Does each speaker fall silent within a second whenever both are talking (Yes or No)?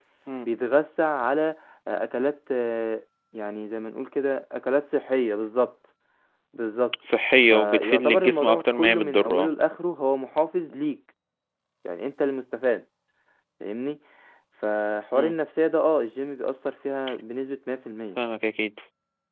No